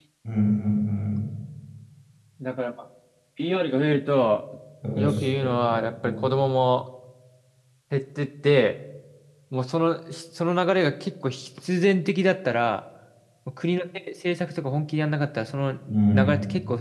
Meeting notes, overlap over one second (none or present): none